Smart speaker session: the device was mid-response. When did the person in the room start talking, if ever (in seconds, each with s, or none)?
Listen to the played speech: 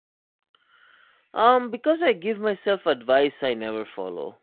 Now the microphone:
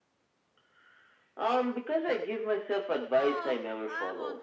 3.1 s